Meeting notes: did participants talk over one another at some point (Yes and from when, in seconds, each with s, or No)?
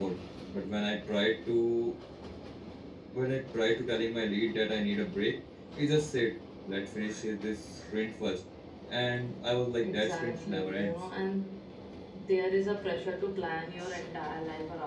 Yes, from 9.8 s